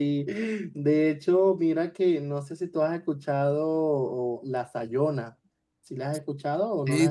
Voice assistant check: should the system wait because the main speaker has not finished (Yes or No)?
No